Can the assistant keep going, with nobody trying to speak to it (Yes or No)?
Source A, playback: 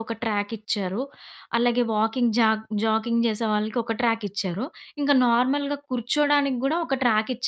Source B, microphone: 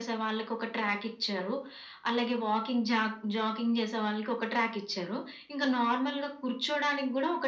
Yes